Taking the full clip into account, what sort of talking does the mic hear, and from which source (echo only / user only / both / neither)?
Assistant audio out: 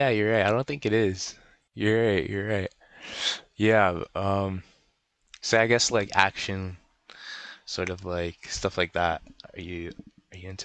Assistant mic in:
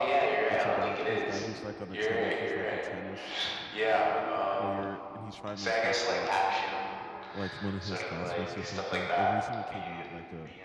both